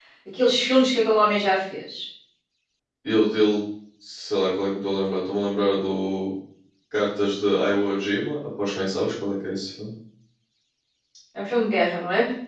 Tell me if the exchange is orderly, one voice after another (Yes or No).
Yes